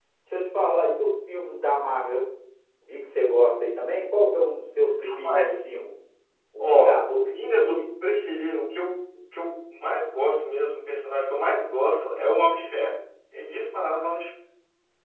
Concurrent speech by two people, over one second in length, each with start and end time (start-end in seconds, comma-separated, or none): 6.6-7.8